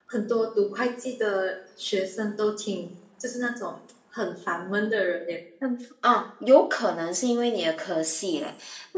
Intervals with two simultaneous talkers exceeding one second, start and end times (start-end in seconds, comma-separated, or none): none